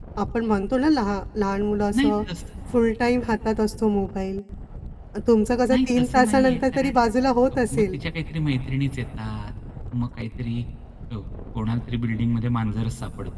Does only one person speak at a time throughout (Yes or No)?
No